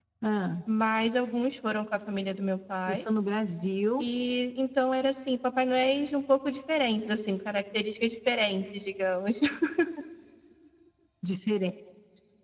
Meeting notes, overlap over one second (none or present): none